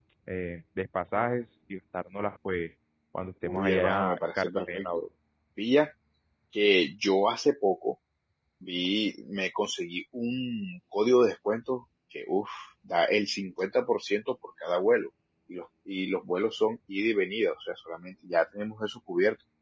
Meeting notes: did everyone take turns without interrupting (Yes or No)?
No